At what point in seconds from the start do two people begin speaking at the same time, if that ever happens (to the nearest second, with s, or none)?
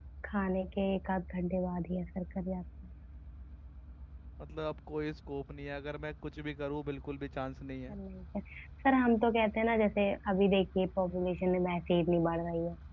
none